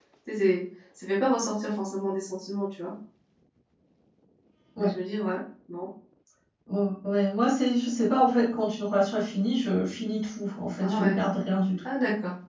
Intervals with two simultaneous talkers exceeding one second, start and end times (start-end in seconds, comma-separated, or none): none